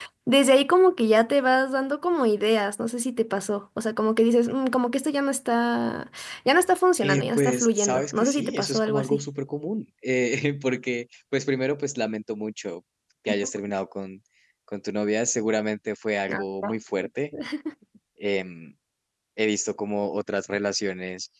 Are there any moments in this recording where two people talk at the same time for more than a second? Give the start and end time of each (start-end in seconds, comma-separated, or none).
7.0-9.2